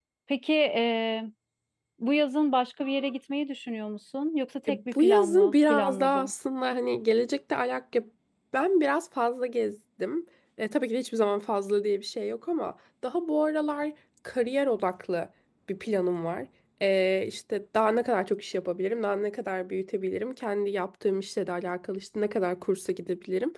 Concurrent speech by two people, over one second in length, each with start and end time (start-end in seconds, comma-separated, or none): 4.7-6.3